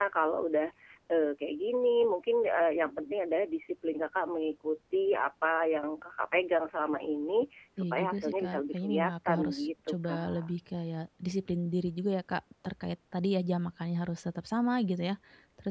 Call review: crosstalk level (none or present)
present